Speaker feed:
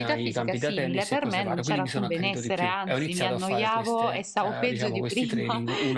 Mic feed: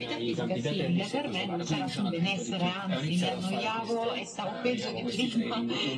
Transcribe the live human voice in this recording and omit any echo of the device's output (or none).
none